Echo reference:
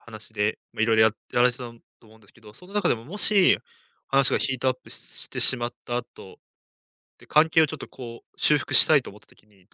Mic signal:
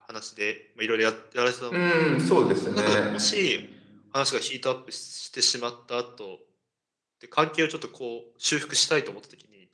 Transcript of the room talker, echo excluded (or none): うーん、そうですね。